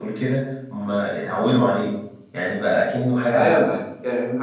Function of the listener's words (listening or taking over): taking over